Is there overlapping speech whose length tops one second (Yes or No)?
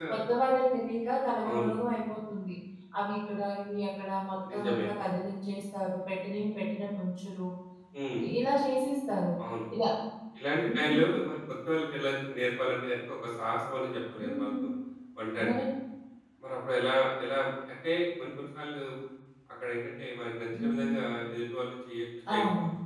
No